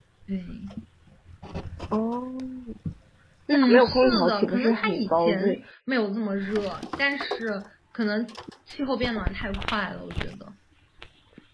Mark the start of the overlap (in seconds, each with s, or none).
3.5 s